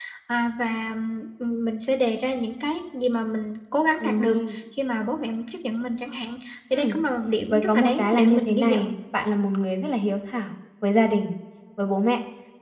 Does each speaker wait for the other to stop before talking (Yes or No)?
No